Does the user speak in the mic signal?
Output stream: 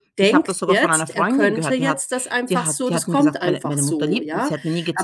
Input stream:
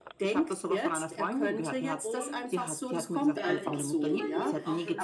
Yes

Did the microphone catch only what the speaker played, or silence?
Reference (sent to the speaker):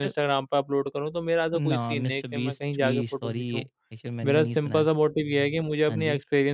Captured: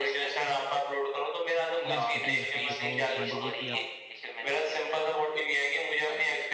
No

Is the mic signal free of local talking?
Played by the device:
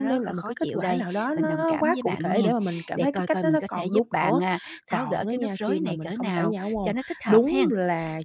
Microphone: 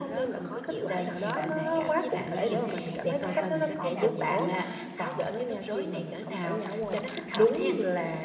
No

